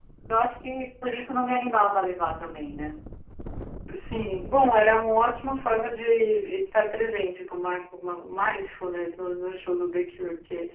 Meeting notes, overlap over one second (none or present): none